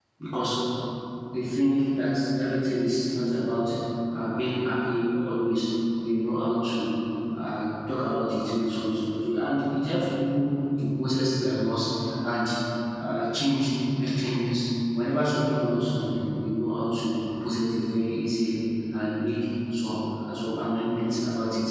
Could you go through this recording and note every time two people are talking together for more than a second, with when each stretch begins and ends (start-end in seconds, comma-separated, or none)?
none